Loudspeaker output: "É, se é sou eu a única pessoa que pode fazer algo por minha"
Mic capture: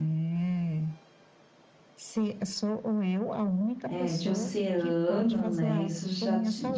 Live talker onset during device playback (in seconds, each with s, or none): 3.8 s